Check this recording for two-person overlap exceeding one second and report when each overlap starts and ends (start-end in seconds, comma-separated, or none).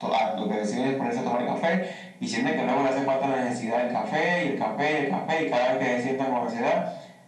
none